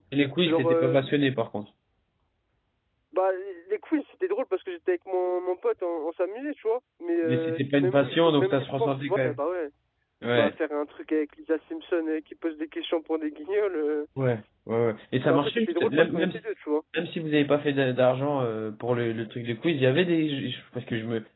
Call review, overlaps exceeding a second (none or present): present